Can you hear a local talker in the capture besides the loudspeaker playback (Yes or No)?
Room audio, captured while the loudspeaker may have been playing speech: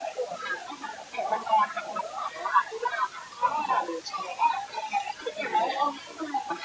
No